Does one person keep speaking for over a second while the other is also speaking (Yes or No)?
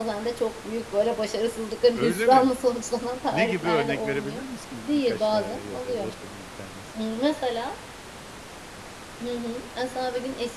Yes